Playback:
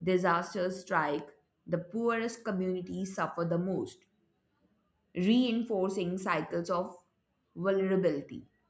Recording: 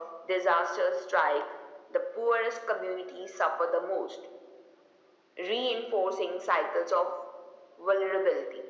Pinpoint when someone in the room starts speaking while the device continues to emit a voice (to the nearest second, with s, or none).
none